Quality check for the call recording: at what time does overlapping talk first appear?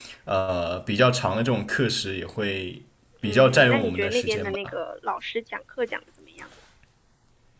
3 s

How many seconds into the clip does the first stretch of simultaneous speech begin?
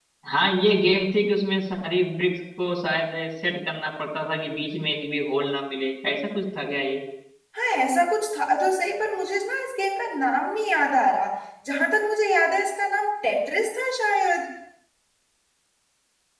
none

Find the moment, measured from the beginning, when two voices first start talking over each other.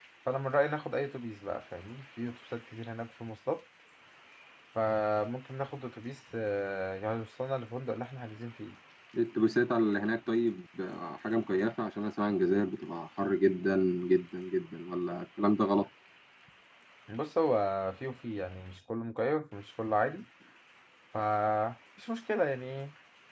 none

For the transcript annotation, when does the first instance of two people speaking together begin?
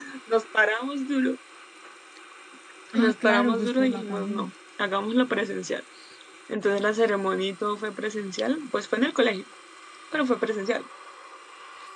3 s

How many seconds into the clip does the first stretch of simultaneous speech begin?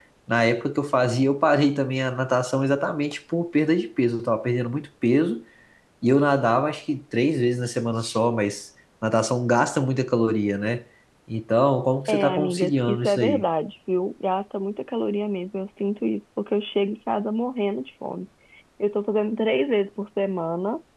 12 s

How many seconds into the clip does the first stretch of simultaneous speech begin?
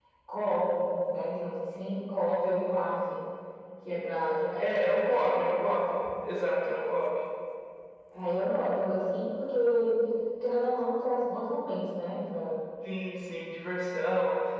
5 s

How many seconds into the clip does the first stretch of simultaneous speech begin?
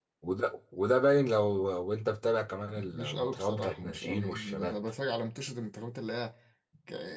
3 s

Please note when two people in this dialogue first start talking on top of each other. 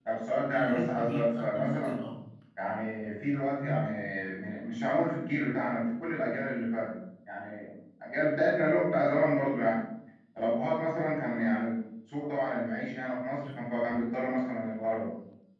1 s

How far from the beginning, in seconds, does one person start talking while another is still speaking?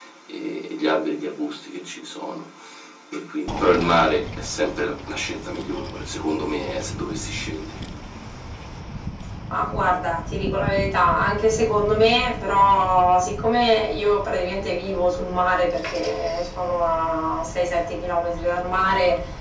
none

